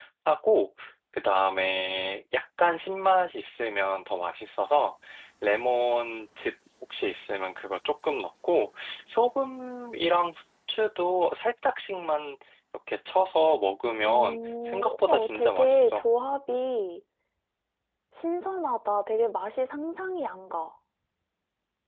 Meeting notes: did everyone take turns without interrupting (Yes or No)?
No